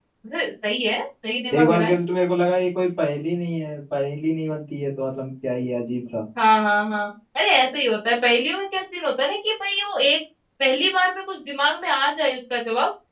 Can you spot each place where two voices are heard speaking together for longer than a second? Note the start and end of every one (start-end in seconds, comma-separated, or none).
none